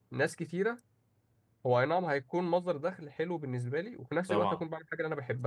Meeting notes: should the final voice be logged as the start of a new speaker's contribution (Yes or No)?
No